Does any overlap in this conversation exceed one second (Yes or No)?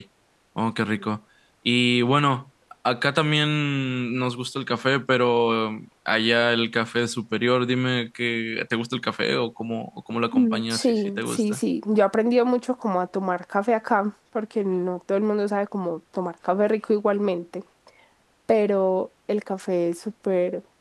Yes